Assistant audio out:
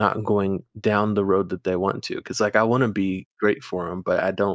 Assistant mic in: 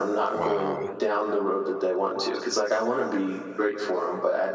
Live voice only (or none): Wow.